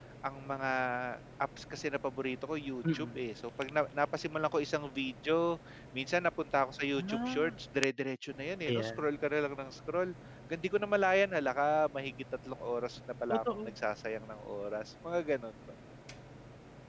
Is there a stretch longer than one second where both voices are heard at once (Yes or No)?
No